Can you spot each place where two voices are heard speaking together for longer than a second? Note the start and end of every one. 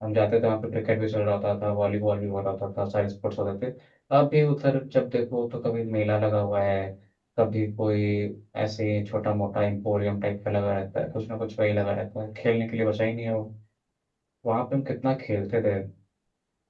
none

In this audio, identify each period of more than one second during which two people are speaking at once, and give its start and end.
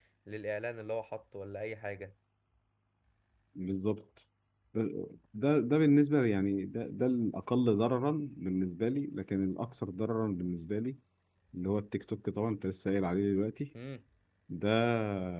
none

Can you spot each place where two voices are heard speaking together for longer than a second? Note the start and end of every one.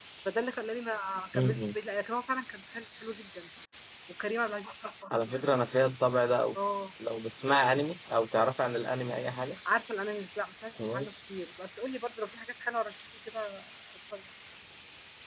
none

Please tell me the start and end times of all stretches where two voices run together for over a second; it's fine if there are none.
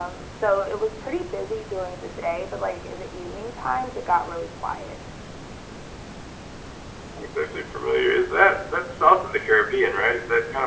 none

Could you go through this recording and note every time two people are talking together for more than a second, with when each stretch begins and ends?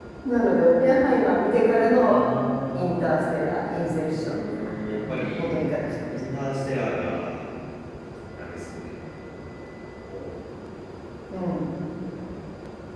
4.1-5.6

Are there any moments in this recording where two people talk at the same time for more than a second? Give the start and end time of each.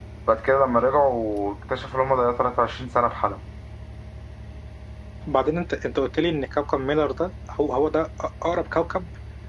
none

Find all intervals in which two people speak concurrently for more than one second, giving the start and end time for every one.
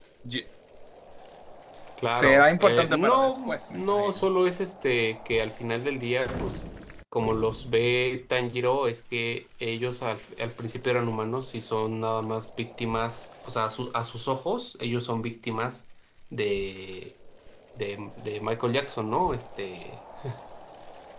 2.1-4.3

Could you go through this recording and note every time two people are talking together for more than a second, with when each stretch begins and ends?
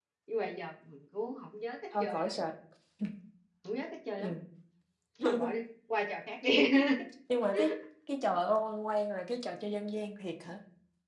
none

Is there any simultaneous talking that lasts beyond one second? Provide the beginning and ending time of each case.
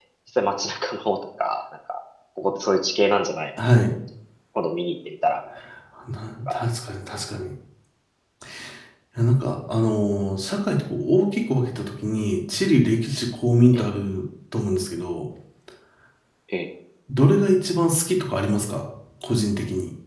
none

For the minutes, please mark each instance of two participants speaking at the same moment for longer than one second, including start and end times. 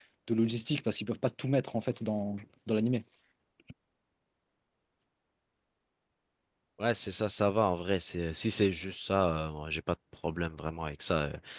none

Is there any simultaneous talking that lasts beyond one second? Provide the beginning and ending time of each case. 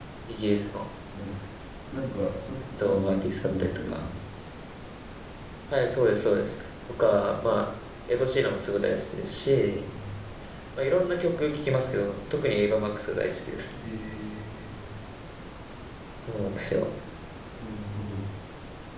2.8-4.0

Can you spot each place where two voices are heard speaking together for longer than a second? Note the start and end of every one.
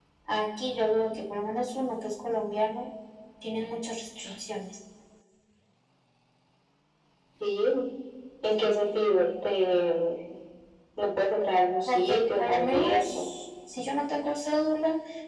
11.9-13.3

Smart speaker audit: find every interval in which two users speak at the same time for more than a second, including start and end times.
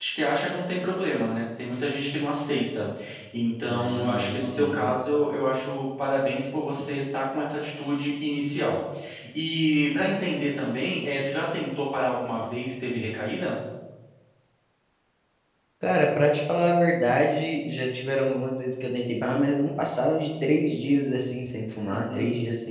3.7-4.9

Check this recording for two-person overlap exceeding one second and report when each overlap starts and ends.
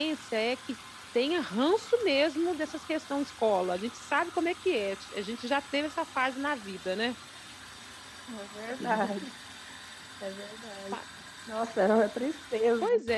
none

